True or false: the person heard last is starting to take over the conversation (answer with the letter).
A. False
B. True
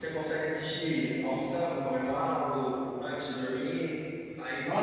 B